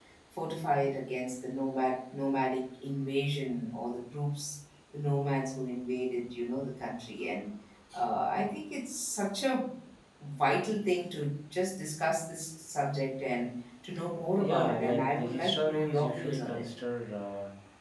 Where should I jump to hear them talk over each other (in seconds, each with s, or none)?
14.4 s